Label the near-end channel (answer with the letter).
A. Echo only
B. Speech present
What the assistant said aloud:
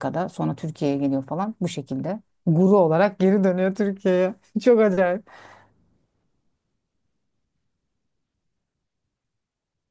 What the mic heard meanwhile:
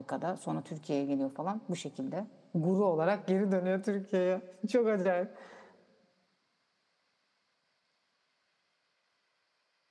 A